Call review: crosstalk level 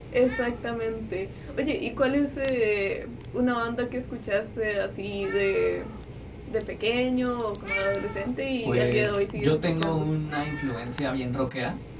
present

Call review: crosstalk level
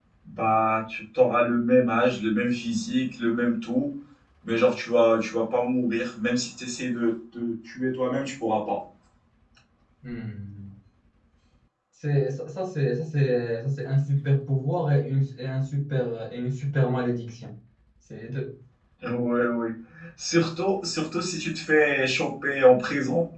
none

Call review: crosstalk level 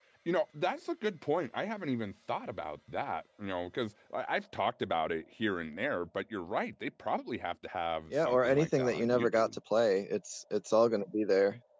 present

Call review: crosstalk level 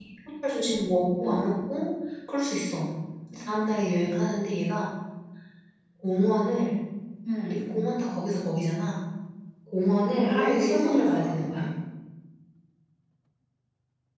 present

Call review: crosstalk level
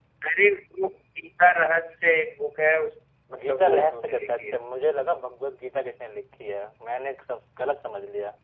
present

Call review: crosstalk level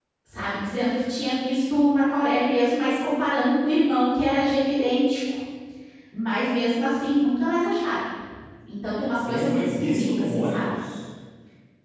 present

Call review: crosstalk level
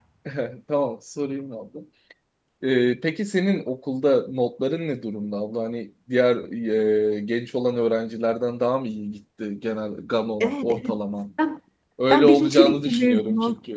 present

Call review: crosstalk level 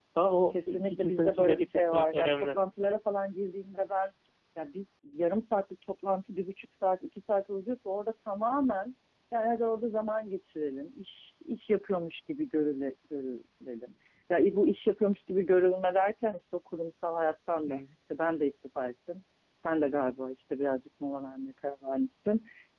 present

